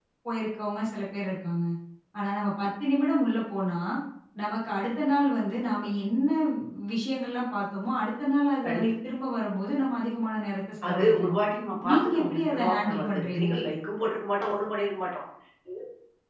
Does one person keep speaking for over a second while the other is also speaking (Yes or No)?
Yes